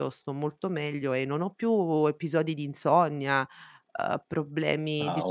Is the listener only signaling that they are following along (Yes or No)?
Yes